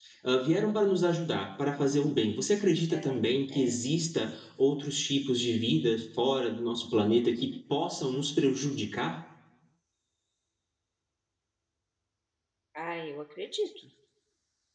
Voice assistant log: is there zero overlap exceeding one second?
Yes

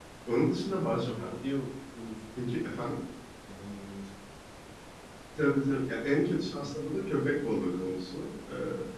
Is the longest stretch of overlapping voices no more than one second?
Yes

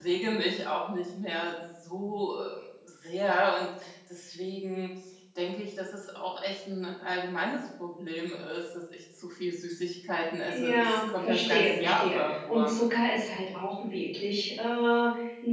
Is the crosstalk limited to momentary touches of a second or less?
No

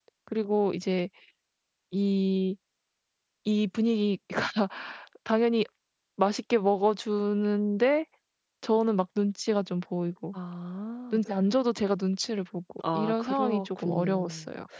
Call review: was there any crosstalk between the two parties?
Yes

